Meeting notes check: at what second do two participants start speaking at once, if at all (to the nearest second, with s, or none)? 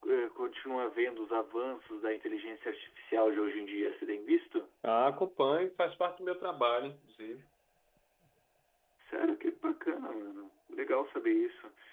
none